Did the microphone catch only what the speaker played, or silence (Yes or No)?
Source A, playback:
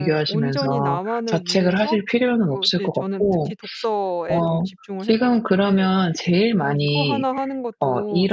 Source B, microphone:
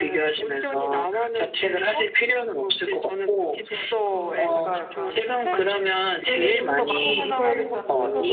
No